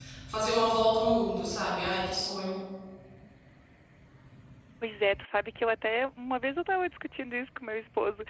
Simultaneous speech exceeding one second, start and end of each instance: none

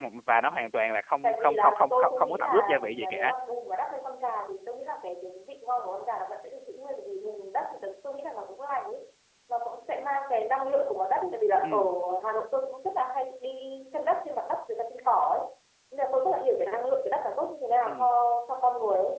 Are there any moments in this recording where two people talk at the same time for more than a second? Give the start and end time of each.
1.2-3.3

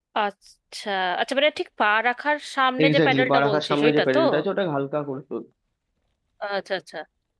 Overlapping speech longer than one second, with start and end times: 2.8-4.2

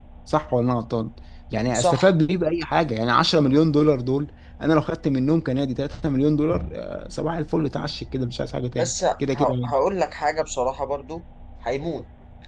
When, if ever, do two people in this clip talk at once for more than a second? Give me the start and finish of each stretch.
none

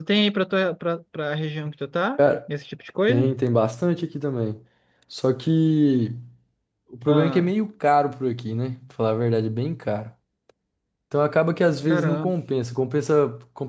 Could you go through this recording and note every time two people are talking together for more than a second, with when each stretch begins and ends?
none

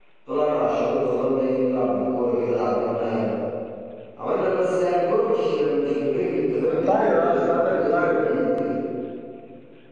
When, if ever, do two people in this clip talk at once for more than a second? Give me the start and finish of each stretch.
6.7-8.2

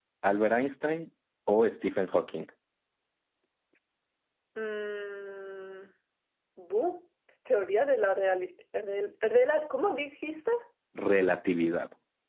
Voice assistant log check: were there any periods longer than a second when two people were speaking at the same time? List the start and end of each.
none

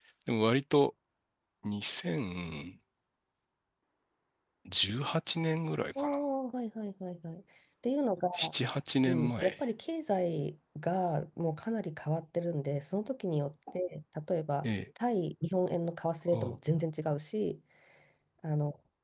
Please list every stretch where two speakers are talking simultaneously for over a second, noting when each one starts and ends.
none

